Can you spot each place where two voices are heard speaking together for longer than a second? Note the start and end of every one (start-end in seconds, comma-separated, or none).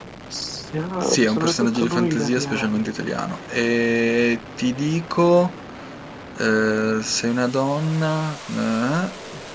1.1-2.9